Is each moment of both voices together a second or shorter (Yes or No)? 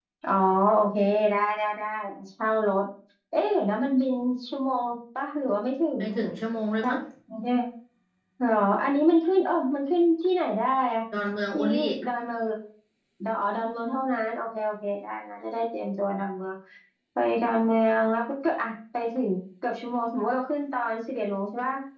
Yes